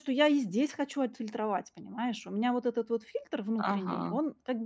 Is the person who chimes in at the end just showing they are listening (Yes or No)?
Yes